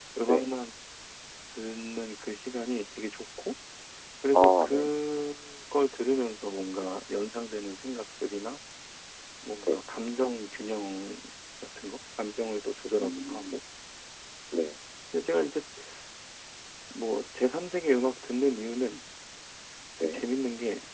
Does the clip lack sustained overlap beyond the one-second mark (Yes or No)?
Yes